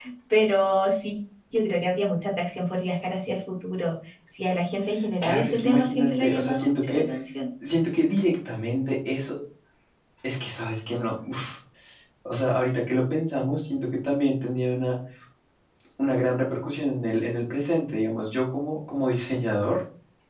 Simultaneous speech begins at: 5.2 s

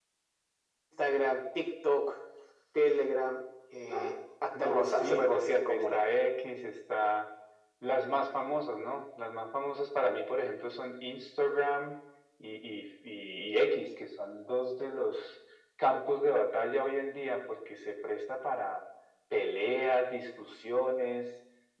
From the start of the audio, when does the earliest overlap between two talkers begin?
4.5 s

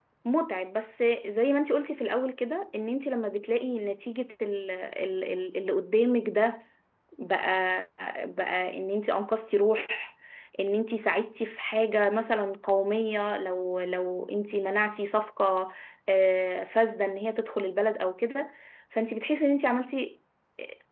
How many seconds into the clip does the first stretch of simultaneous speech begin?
none

